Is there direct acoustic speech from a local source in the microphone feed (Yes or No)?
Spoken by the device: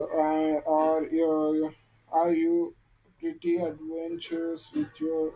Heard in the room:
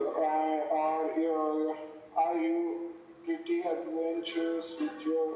No